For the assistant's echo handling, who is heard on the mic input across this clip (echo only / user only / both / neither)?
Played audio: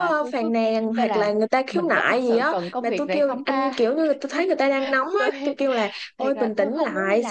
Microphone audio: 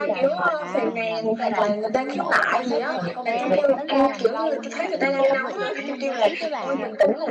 both